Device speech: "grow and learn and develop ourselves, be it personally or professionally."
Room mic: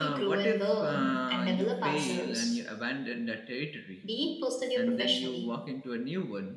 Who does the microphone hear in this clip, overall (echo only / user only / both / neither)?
both